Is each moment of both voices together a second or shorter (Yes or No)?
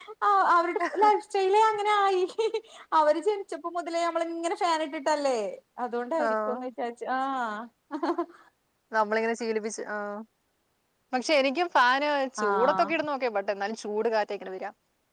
Yes